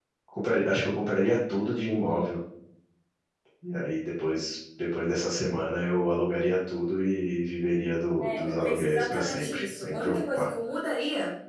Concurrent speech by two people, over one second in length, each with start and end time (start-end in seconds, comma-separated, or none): 8.2-10.5